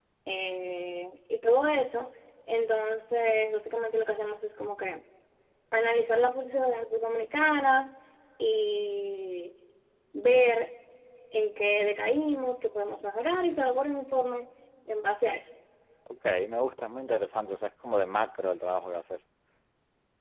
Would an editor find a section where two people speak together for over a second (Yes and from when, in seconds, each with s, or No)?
No